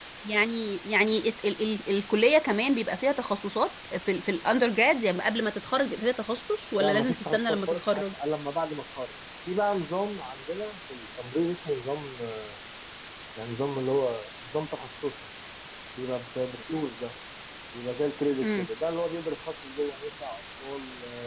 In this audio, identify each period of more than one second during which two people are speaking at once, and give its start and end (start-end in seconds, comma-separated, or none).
6.8-8.1